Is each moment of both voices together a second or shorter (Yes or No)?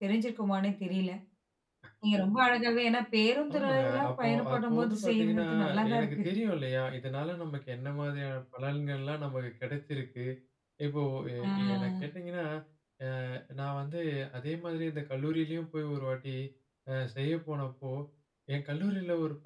No